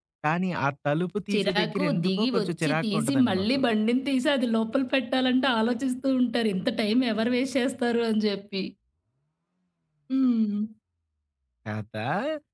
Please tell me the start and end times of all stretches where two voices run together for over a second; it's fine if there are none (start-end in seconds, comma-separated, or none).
1.3-3.6